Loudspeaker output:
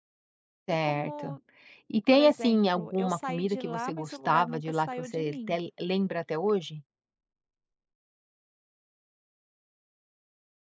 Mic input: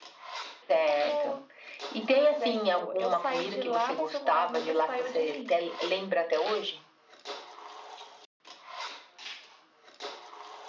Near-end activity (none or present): none